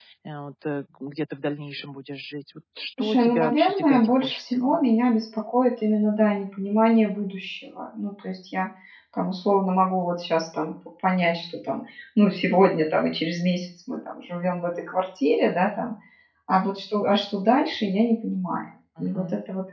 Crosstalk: present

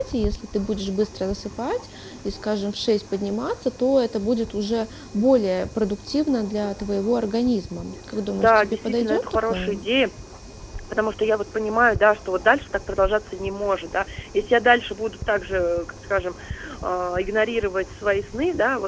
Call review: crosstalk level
present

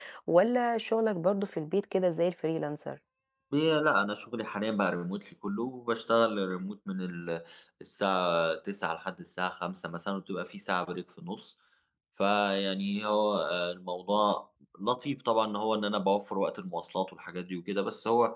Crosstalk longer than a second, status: none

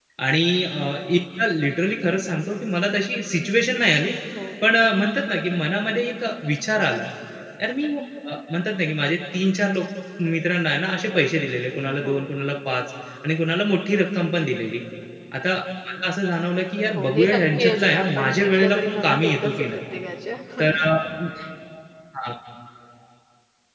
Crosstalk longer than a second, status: present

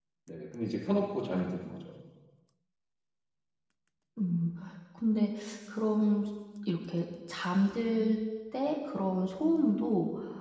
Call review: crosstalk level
none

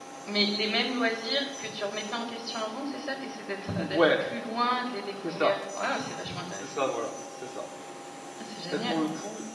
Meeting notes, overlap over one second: none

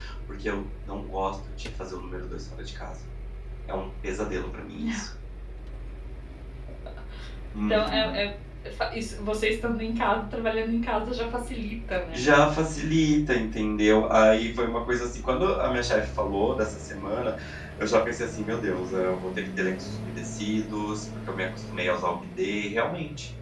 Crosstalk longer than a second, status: none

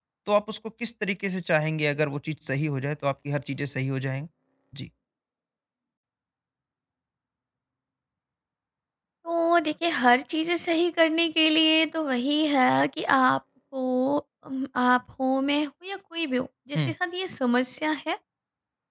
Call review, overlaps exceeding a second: none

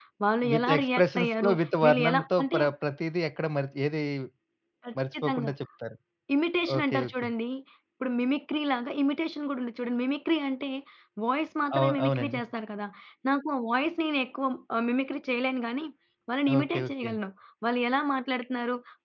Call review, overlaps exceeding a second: present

